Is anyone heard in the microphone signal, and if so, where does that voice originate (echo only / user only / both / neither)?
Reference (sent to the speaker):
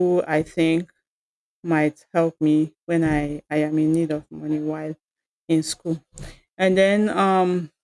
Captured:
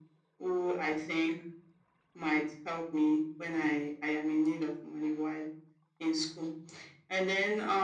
echo only